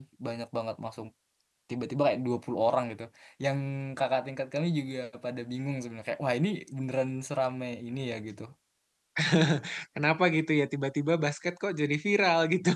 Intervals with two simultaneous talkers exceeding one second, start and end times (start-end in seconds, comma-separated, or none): none